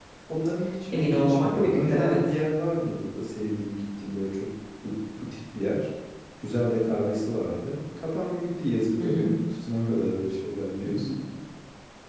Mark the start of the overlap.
0.9 s

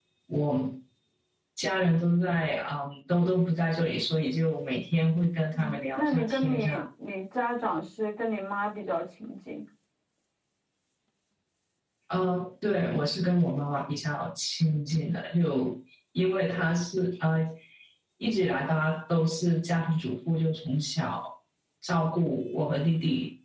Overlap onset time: 5.5 s

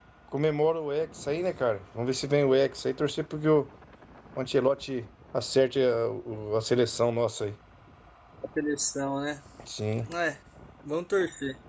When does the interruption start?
none

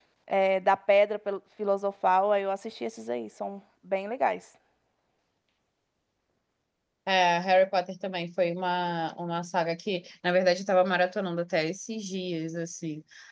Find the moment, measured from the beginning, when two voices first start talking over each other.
none

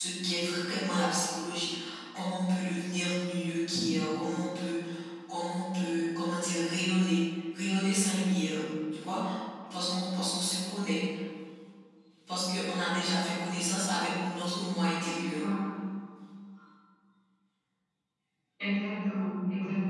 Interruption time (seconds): none

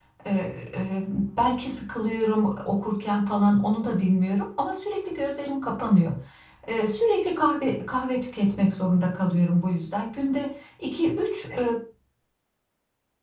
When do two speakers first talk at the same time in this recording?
none

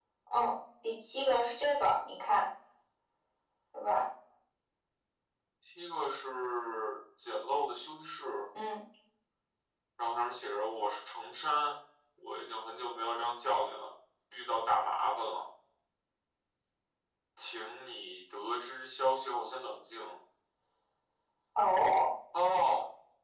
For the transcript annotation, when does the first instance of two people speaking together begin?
none

